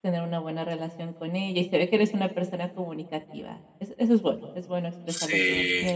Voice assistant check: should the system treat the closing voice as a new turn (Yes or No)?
No